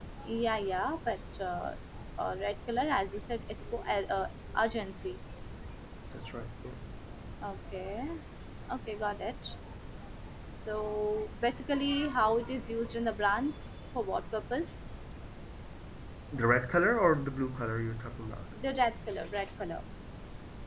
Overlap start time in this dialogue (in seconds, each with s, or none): none